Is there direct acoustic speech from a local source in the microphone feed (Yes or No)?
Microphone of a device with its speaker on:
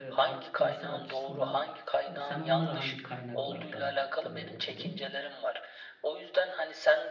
Yes